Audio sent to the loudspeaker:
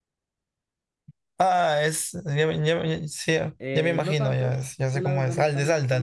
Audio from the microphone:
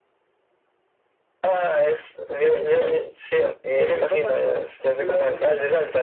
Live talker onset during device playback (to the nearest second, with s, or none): none